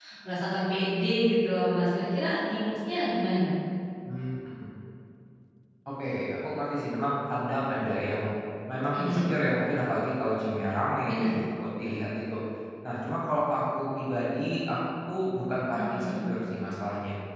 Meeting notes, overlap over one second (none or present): none